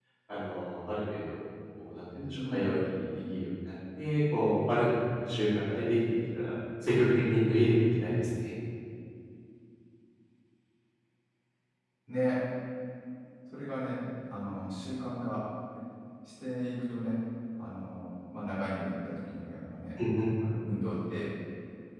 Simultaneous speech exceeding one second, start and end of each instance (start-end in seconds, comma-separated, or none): none